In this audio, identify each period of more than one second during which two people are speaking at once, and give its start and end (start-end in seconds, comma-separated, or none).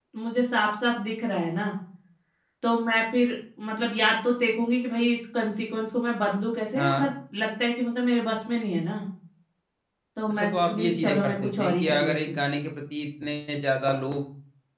10.3-12.4